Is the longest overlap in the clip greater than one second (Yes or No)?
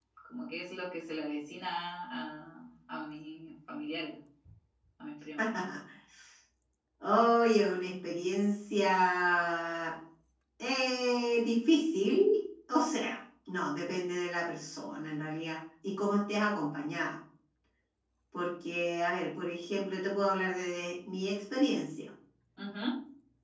No